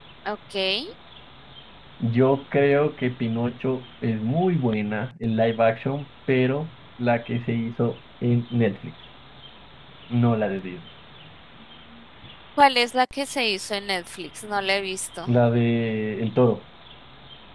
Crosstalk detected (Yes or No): No